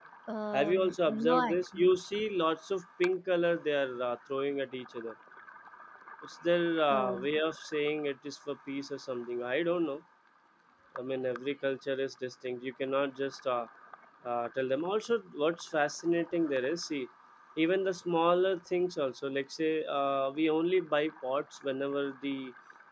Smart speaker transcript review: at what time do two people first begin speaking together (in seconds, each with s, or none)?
0.5 s